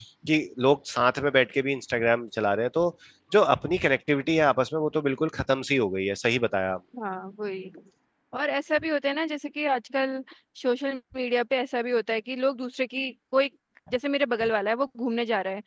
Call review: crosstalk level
none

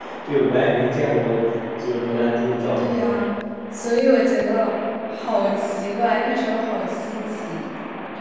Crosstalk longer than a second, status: none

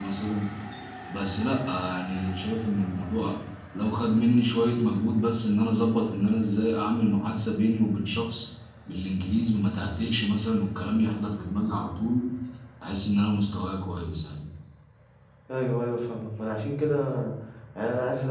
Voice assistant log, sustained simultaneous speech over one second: none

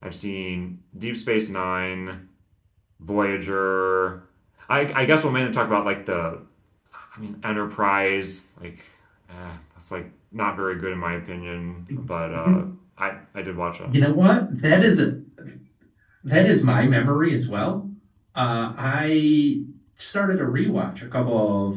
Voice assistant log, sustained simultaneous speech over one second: none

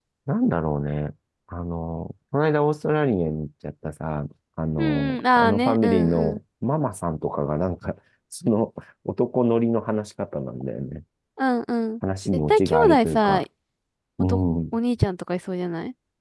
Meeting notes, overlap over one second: present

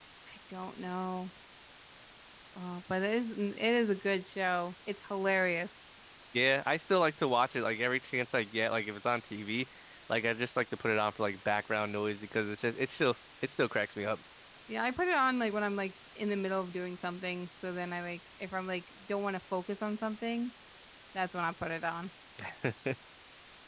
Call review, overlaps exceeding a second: none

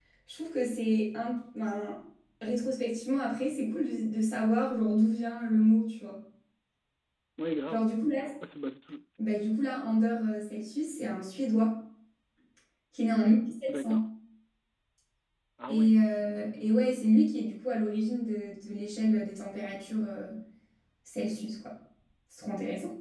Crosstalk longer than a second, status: none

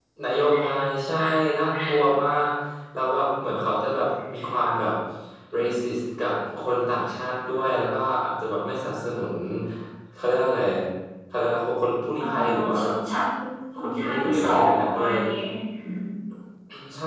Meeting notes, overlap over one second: present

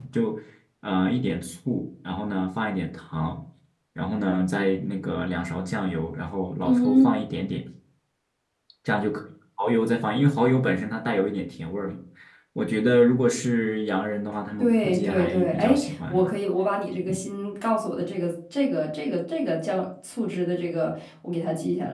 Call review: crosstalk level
present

